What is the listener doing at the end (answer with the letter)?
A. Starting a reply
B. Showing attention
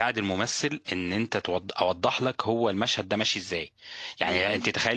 B